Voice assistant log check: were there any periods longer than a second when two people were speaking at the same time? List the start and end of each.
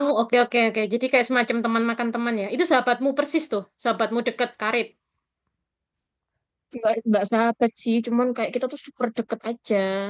none

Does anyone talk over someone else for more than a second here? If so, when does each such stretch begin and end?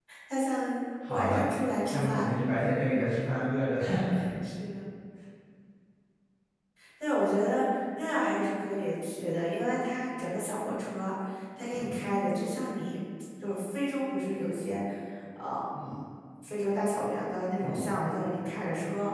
none

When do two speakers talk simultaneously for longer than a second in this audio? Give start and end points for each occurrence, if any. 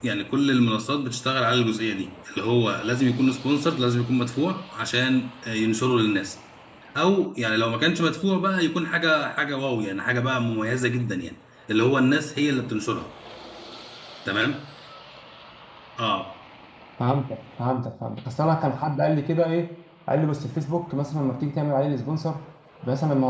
none

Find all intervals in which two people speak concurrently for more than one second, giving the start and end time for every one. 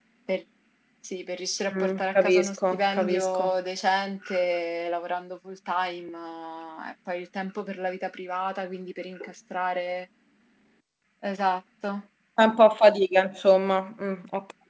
1.8-3.5

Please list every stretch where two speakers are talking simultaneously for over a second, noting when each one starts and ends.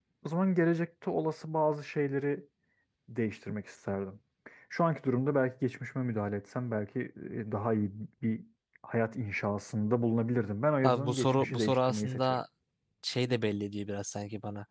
10.8-12.4

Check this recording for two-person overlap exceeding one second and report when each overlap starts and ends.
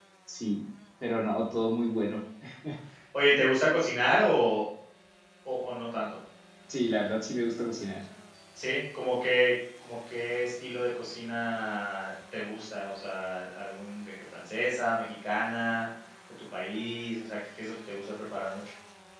none

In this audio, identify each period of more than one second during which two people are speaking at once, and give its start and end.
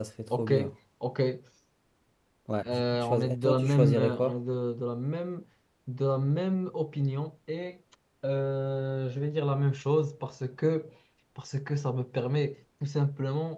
2.6-4.3

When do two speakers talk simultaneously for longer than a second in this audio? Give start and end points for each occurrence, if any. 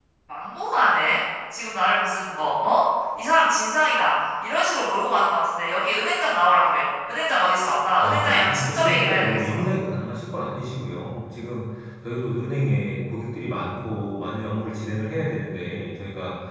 8.0-9.6

